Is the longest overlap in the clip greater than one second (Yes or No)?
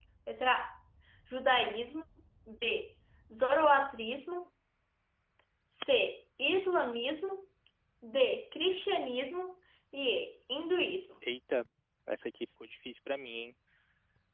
No